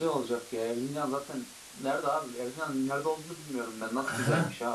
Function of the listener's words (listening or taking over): taking over